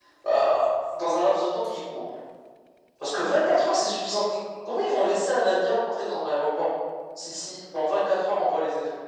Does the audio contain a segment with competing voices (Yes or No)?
No